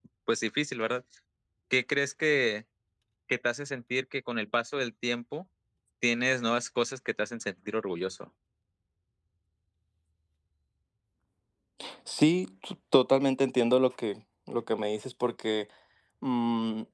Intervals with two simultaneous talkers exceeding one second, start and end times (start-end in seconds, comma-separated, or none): none